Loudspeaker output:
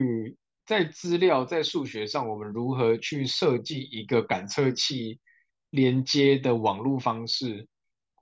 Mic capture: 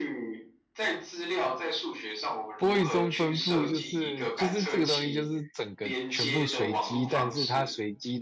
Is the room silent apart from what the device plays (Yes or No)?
No